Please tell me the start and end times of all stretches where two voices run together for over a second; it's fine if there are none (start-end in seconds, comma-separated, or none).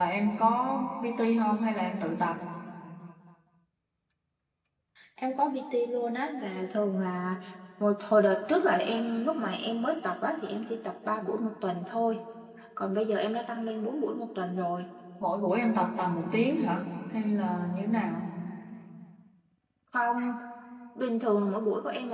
none